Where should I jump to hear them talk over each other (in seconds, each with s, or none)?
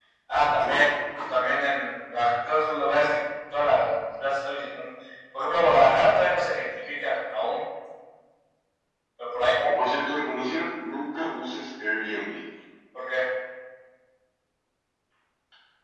none